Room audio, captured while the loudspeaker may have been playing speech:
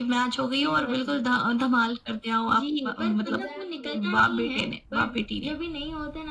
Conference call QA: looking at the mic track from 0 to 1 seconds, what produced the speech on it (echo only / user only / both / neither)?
echo only